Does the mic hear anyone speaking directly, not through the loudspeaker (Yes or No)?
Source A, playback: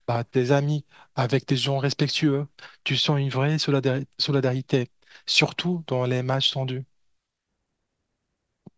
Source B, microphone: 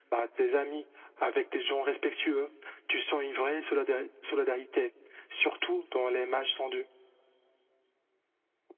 No